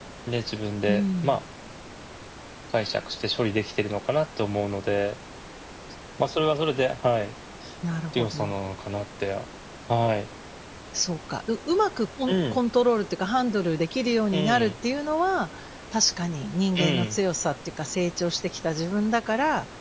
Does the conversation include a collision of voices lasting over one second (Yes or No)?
No